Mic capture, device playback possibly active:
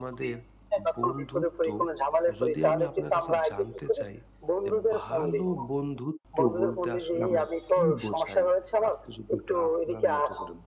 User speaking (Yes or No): Yes